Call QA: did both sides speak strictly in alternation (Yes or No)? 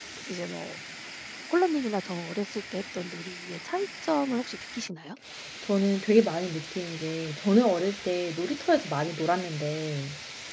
Yes